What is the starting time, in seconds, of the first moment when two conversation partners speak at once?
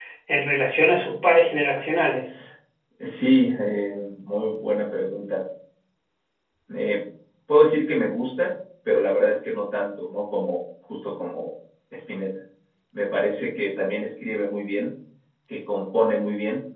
none

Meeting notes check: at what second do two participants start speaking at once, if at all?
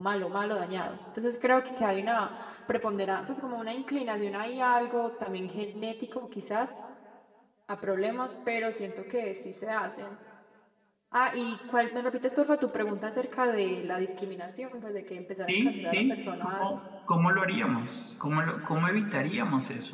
15.5 s

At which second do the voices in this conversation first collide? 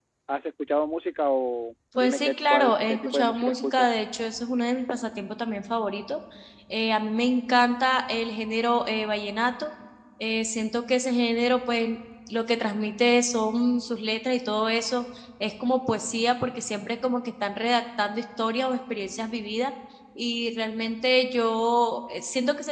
1.9 s

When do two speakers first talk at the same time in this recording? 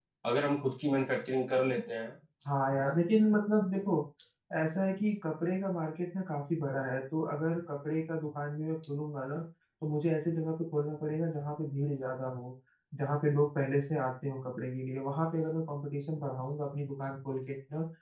none

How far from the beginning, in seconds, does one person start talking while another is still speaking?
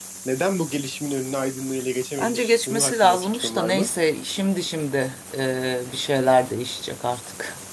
2.2 s

